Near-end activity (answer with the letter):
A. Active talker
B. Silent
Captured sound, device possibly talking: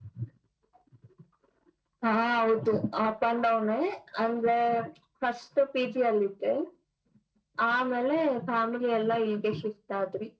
B